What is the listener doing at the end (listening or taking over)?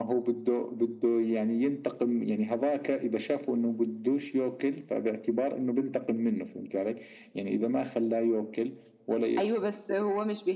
taking over